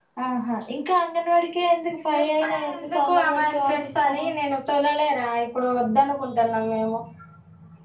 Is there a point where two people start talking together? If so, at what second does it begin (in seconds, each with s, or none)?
2.1 s